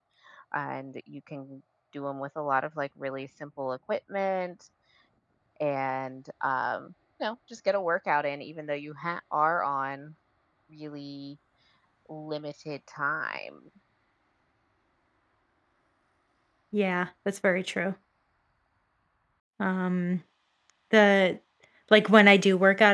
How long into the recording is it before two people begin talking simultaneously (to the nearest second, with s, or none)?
none